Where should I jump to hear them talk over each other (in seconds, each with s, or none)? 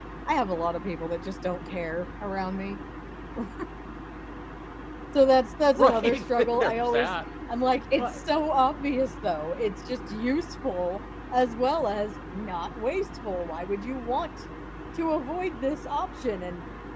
5.8 s